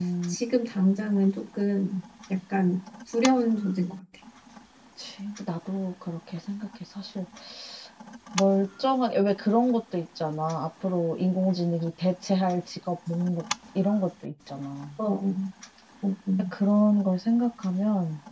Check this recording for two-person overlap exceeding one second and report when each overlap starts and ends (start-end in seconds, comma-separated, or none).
none